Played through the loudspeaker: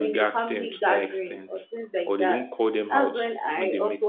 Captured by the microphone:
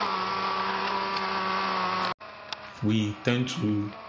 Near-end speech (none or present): present